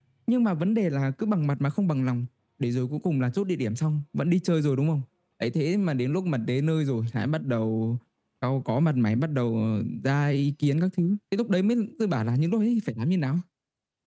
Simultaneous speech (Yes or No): No